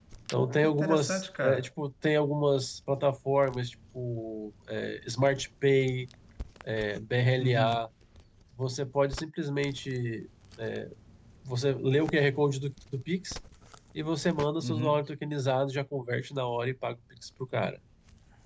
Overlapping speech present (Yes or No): Yes